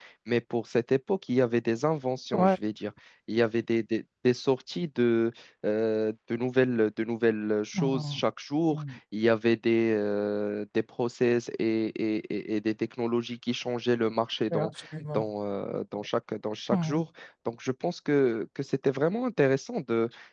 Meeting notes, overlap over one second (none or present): none